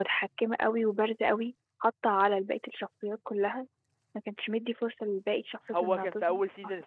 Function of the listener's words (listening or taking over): taking over